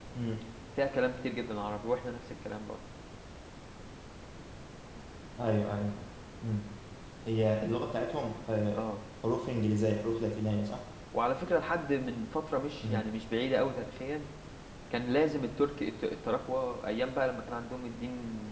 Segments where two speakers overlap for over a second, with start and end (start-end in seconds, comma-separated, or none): none